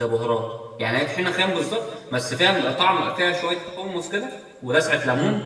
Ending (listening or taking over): taking over